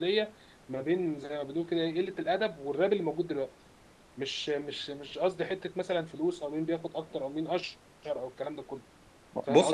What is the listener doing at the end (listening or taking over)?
taking over